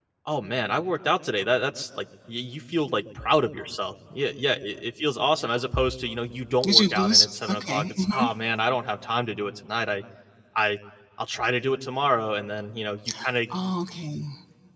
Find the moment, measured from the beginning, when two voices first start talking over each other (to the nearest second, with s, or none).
7 s